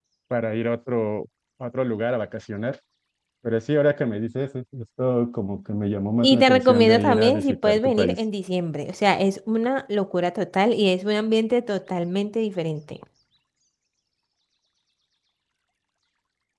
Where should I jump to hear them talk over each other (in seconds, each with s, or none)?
6.2 s